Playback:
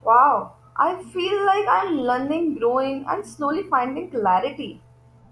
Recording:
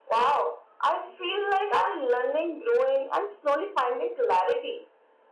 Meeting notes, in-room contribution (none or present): none